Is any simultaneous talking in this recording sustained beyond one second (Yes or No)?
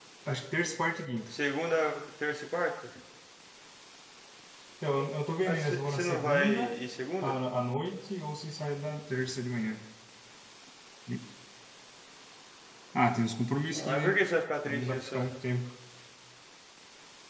Yes